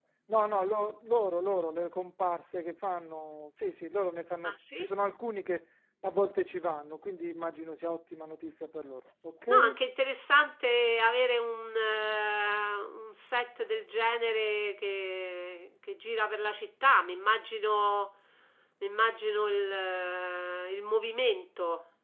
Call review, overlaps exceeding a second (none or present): none